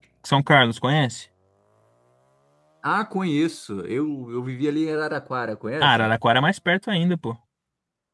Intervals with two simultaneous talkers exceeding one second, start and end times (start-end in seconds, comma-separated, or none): none